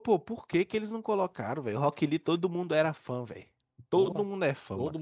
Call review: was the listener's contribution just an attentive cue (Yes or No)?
No